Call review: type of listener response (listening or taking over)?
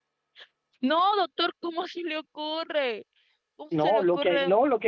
taking over